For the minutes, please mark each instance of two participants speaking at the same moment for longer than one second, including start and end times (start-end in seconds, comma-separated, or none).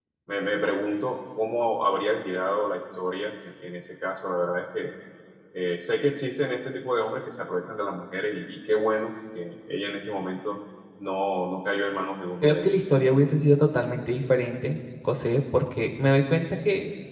none